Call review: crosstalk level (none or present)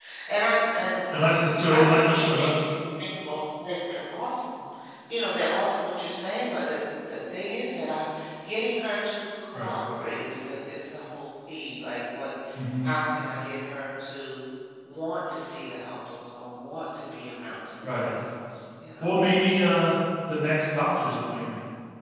present